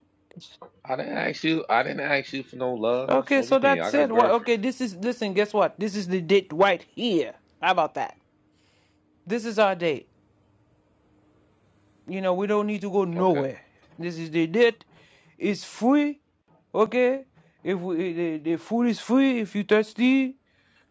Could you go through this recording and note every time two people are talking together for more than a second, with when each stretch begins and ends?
3.1-4.5

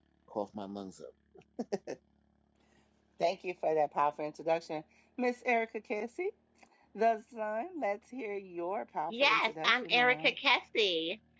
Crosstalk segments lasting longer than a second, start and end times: 9.1-10.3

